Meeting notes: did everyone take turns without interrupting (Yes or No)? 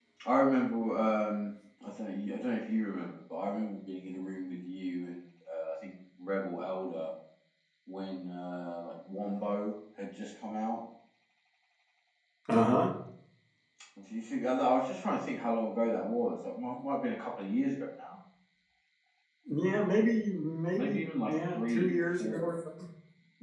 No